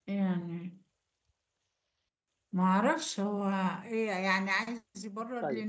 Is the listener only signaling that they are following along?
No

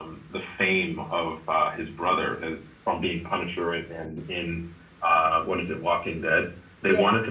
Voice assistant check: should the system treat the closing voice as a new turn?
No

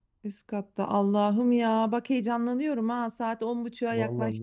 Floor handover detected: Yes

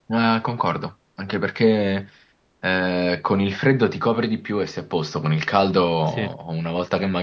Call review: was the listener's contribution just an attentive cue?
Yes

